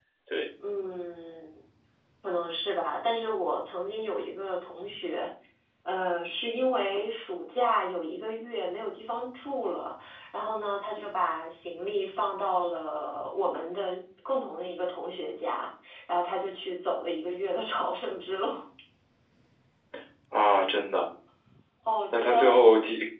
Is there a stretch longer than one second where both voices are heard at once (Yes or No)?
No